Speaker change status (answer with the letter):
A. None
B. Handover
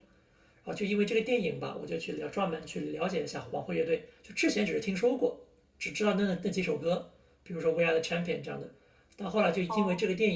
A